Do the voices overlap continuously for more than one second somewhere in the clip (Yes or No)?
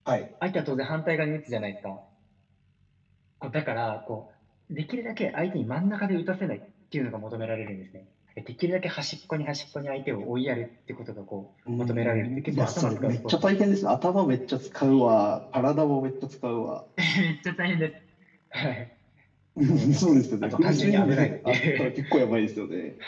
Yes